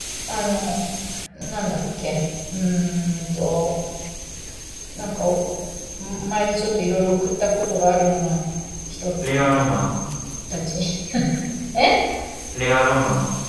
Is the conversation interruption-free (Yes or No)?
Yes